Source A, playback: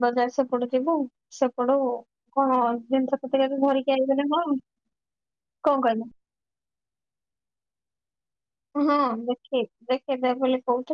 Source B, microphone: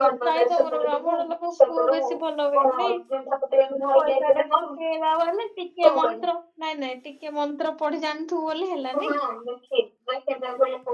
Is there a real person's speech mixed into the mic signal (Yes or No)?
Yes